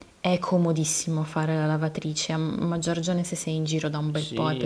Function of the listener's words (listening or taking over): taking over